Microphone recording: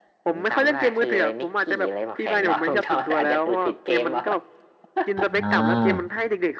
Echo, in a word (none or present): present